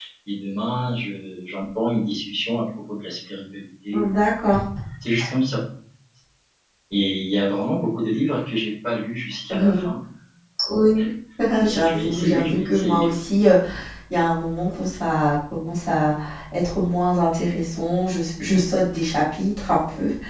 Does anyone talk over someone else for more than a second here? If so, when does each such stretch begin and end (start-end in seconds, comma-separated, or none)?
11.6-13.1